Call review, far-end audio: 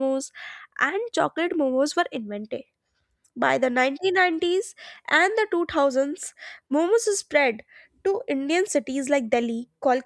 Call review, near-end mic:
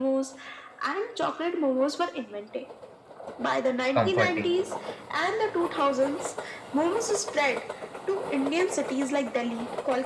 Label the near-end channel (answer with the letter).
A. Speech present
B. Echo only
A